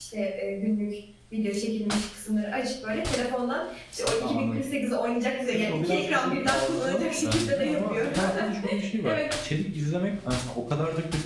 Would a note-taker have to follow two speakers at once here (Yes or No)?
Yes